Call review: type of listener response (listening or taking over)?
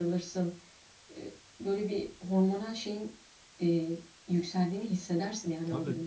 taking over